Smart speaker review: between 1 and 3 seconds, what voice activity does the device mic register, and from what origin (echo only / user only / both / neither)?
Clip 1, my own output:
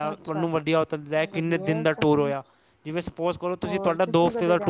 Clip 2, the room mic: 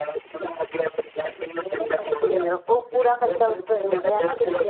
both